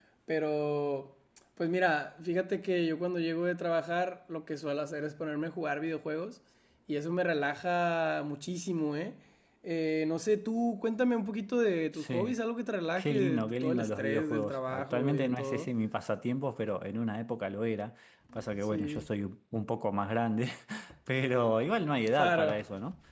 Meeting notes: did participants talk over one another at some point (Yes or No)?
Yes